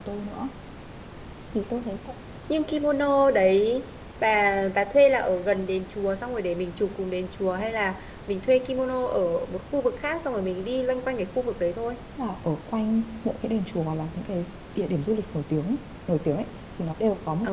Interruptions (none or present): none